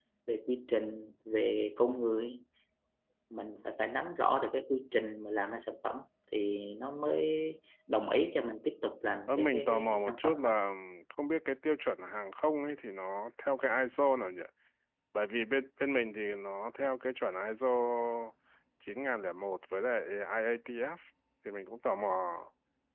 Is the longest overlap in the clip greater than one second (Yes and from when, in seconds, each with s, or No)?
Yes, from 9.3 s